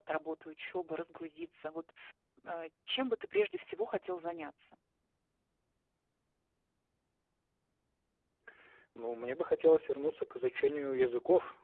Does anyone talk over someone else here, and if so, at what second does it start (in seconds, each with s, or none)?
none